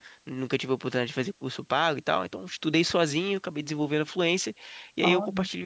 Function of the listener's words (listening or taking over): listening